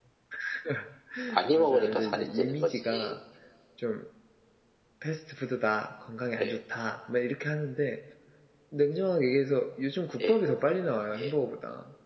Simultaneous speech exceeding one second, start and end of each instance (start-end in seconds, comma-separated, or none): 1.5-3.1